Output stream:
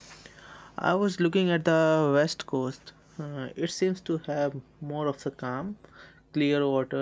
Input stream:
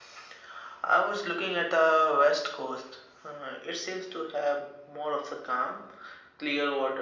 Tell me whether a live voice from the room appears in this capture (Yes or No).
No